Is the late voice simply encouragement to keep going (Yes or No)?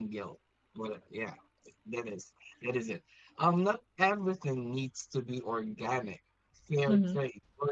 Yes